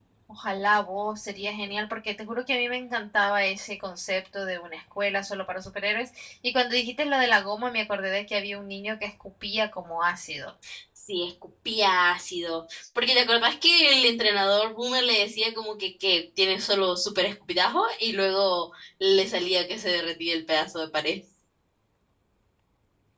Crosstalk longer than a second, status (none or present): none